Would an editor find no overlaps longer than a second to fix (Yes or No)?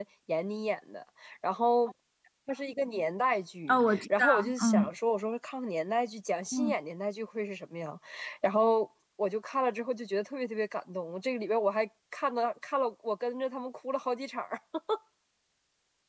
No